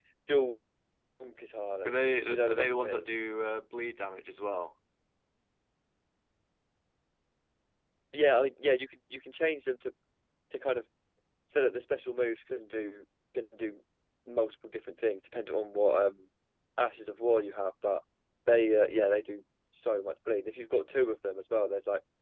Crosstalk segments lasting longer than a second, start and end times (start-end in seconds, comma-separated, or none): 1.8-3.1